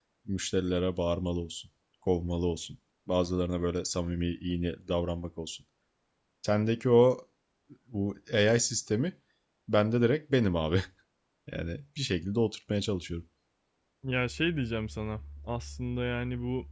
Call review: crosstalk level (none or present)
none